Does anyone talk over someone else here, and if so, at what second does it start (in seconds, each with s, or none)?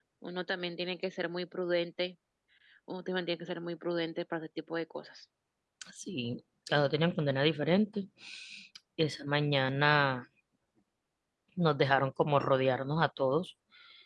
none